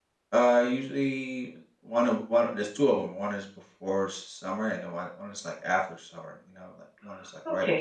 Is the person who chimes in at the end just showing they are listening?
No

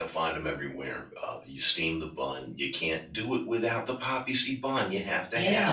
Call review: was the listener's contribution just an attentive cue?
No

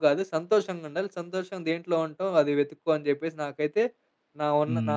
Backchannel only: No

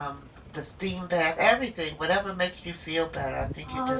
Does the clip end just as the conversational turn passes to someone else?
Yes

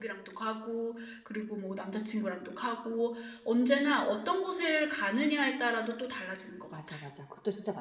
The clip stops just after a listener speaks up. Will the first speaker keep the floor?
No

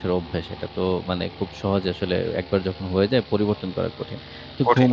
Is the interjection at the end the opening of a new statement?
No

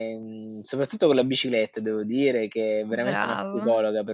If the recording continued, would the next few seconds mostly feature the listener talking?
No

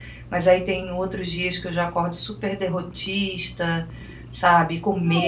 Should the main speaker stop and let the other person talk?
Yes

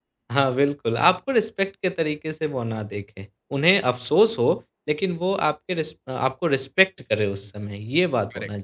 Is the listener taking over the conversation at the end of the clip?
Yes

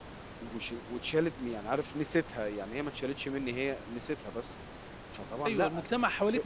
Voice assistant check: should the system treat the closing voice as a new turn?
Yes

